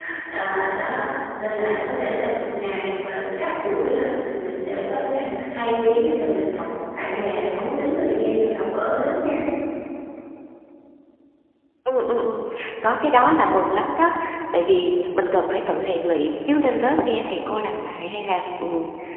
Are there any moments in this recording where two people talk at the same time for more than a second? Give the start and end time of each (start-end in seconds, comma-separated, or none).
none